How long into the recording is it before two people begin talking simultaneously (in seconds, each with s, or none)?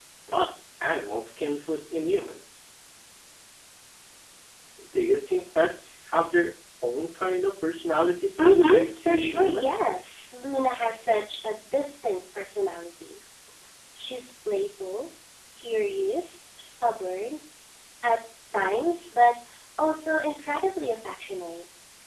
8.4 s